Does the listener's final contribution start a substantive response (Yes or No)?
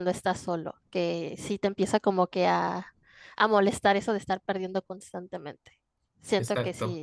No